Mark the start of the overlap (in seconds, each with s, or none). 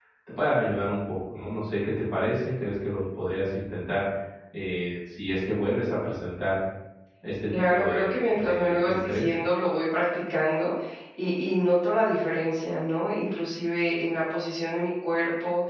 7.5 s